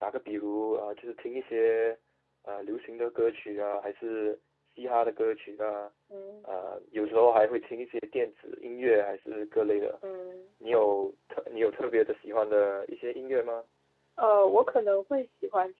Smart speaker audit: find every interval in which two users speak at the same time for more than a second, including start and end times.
none

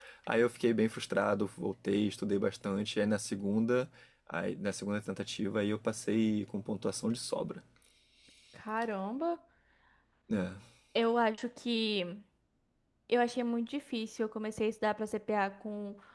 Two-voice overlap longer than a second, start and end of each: none

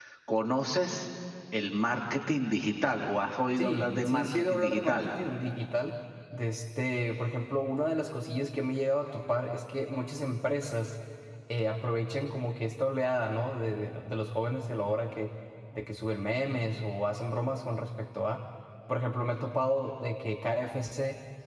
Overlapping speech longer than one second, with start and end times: 3.6-5.1

